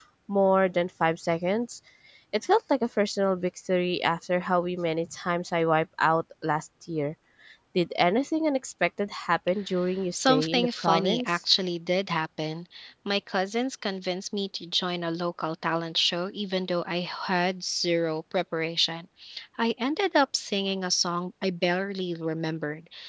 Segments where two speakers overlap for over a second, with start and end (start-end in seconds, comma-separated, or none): 10.1-11.4